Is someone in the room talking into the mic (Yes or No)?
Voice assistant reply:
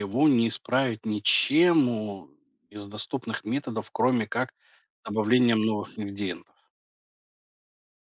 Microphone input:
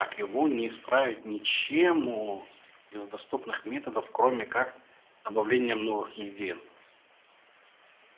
No